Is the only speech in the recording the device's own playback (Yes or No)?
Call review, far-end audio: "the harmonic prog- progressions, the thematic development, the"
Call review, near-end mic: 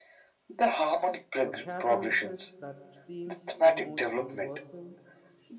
No